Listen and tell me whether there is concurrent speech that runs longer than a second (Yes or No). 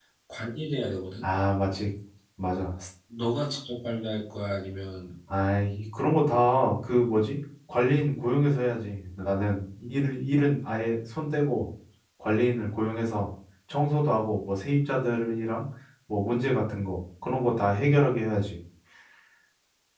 No